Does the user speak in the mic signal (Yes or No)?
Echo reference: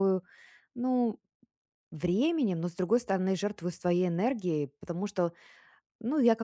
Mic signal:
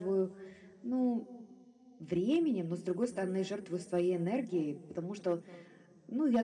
No